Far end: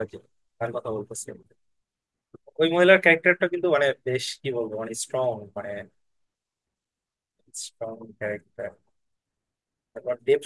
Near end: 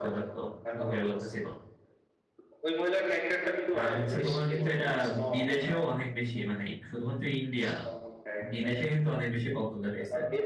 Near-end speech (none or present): present